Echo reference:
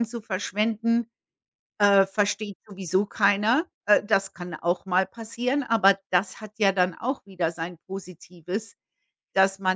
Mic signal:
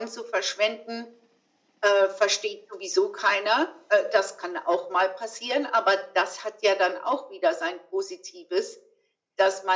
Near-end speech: none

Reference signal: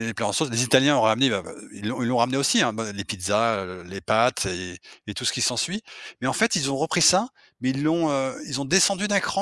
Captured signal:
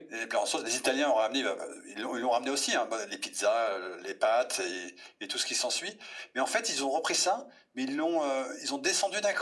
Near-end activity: none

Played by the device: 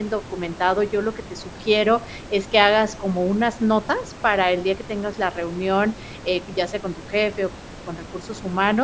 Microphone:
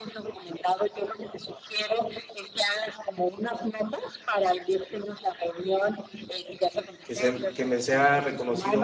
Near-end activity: present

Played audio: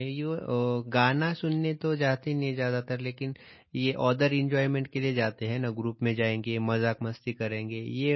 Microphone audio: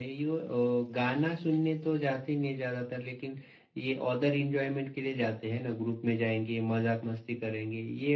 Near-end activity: none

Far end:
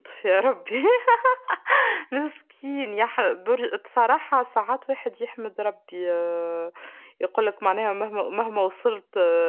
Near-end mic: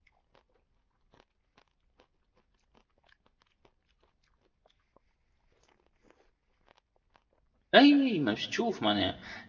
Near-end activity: present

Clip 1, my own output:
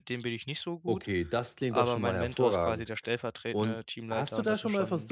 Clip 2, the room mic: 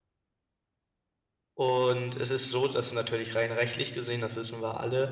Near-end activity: present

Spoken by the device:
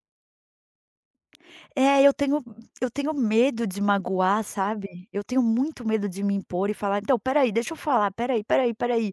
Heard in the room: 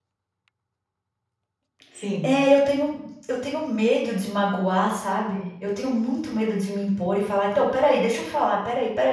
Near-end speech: present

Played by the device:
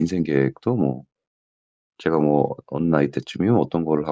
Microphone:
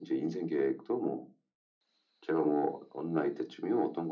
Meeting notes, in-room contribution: none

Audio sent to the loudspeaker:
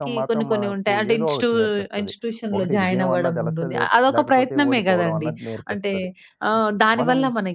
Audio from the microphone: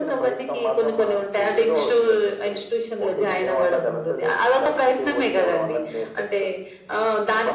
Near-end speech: none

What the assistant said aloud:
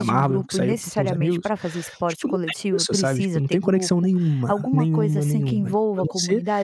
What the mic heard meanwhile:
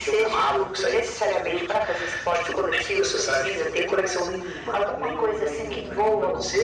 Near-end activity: none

